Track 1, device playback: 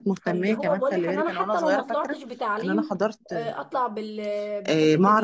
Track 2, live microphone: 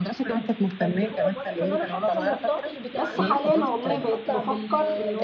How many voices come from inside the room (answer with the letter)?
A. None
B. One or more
B